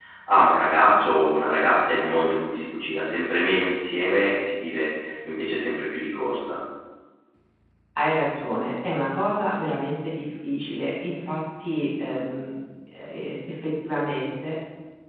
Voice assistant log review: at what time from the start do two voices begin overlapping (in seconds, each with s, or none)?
none